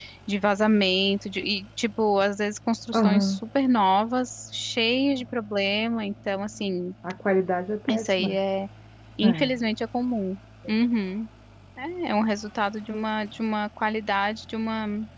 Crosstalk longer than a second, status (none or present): none